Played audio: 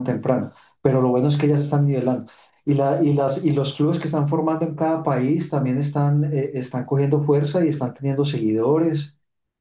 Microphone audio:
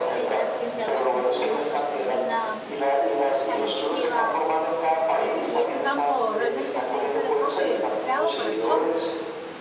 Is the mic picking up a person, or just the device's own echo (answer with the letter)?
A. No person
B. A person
B